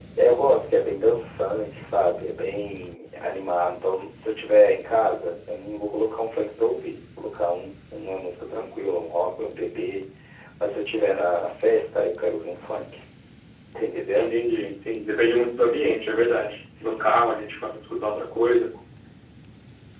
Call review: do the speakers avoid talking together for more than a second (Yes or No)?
Yes